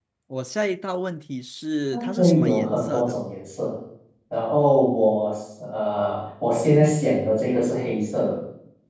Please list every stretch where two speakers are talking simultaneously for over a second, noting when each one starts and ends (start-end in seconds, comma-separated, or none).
1.9-3.2